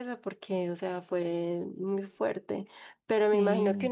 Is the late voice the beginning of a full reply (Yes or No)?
No